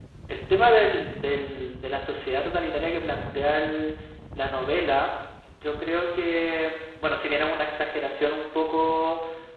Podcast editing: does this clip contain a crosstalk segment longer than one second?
No

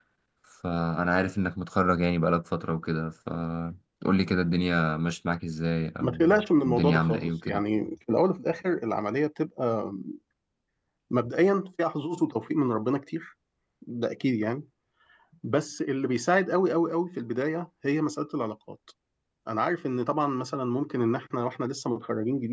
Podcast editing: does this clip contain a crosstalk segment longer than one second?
Yes, from 6.0 s

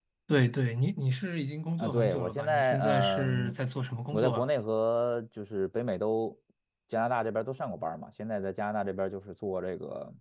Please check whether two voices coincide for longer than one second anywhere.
Yes, from 1.8 s

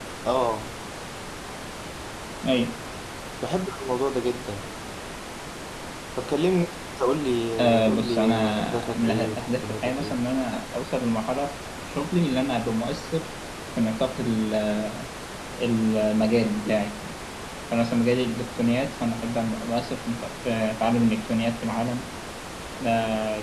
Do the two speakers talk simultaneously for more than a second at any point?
Yes, from 7.6 s

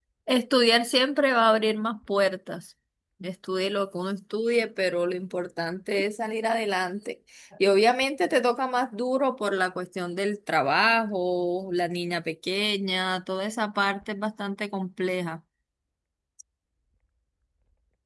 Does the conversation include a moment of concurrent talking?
No

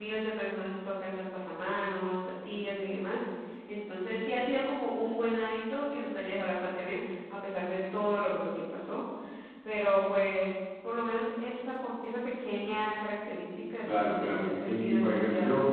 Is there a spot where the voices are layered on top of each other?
Yes, from 13.9 s

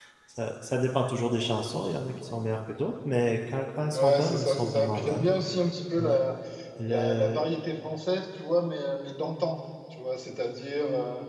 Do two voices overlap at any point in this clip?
Yes, from 3.9 s

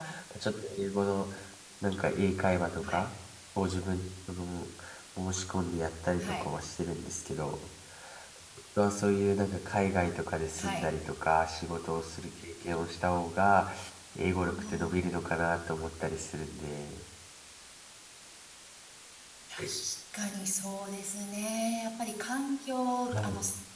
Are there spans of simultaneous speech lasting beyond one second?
No

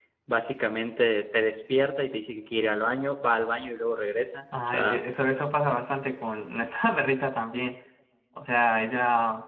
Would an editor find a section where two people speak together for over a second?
No

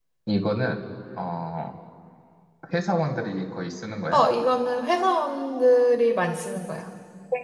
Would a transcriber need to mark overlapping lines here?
No

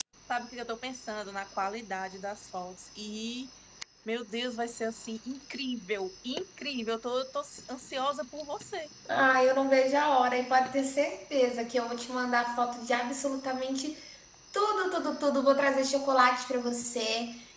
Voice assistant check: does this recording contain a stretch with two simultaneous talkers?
No

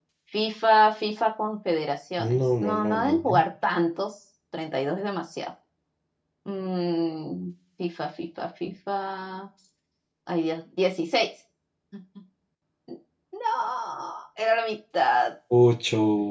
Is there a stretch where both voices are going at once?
Yes, from 2.2 s

